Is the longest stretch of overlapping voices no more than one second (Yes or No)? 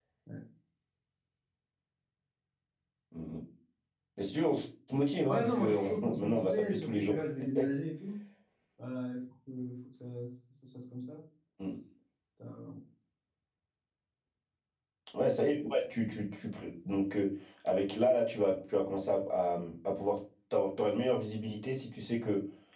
No